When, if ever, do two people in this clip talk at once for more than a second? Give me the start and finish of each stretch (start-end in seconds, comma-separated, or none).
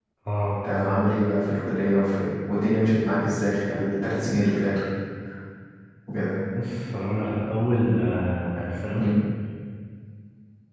none